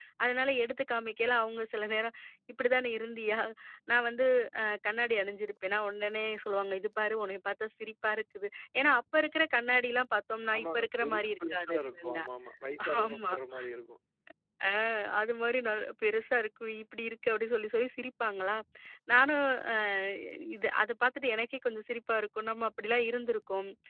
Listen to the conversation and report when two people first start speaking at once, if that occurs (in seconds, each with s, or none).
10.6 s